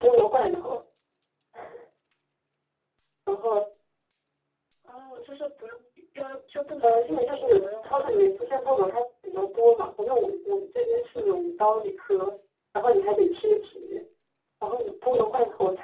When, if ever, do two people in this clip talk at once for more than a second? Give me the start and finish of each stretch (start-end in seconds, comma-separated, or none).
6.8-8.2